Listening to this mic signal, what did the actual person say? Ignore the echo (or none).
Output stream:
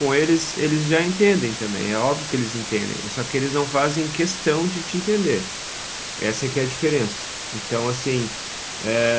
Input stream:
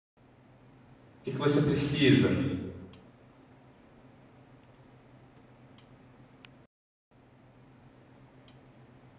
O que que você precisa?